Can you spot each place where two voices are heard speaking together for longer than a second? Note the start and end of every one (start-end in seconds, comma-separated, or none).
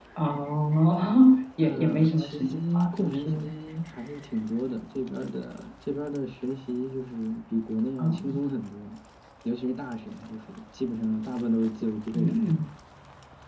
1.6-3.5